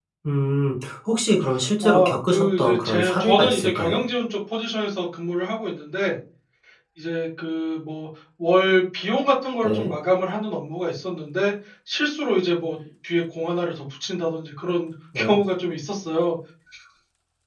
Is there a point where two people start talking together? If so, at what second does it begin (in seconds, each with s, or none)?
1.8 s